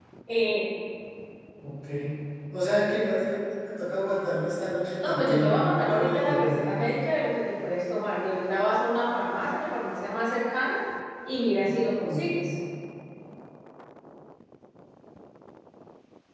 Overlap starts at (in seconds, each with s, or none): 5.0 s